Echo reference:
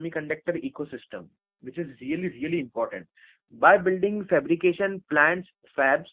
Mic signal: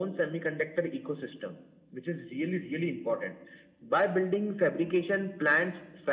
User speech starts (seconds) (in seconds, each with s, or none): none